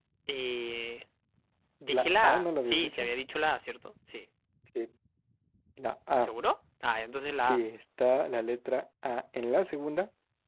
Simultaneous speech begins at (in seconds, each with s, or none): 1.9 s